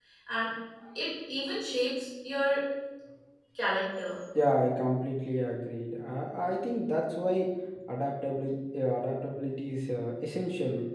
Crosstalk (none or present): none